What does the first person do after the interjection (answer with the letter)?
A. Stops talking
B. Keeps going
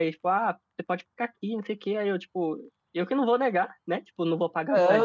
A